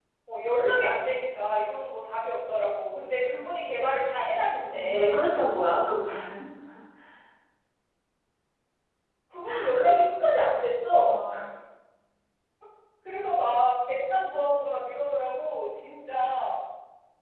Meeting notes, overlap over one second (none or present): none